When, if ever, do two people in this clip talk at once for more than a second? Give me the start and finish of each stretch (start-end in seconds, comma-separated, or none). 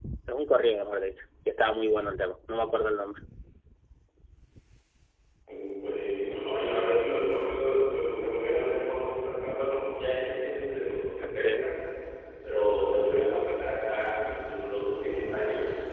none